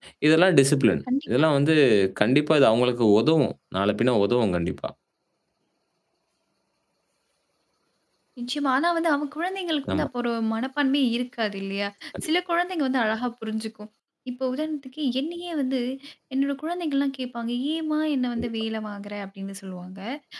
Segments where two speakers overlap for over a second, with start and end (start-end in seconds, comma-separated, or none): none